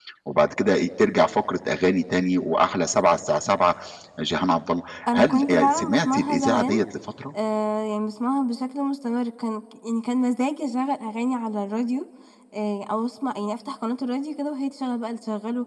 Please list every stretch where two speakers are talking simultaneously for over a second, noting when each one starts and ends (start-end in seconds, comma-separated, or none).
5.1-6.7